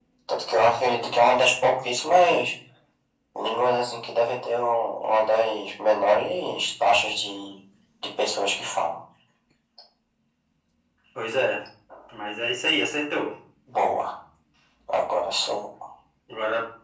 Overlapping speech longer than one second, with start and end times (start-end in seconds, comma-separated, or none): none